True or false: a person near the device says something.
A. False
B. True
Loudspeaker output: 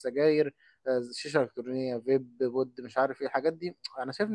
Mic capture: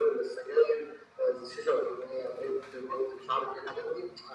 A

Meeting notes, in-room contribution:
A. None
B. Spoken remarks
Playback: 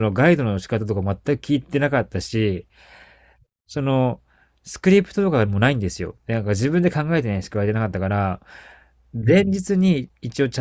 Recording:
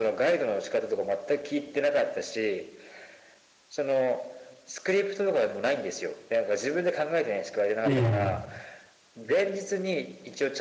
B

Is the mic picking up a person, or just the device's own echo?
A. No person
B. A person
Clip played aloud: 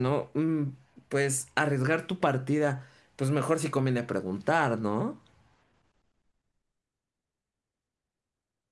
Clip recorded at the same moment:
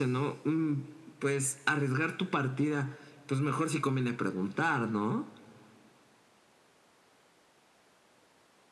A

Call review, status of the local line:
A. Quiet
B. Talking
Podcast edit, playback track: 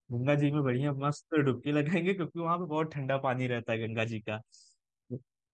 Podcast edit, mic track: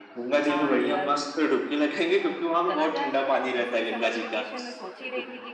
B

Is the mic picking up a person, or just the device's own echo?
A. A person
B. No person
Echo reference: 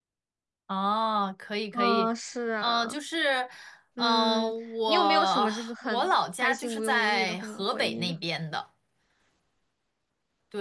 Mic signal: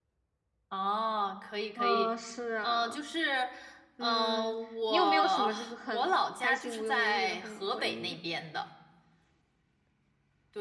B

